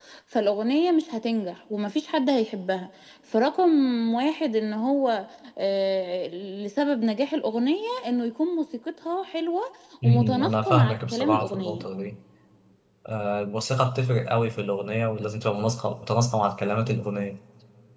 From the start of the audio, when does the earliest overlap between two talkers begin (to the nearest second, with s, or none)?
10 s